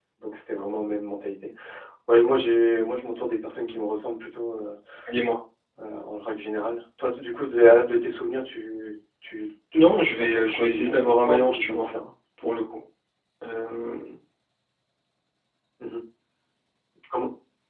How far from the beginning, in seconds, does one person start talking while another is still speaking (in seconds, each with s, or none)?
9.7 s